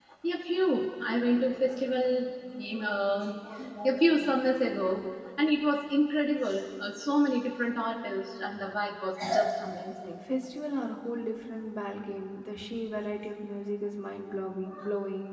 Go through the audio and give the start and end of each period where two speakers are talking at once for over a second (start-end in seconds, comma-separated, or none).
none